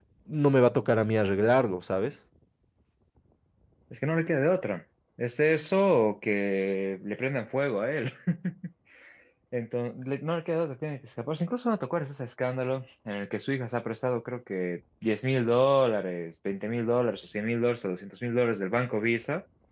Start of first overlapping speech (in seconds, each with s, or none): none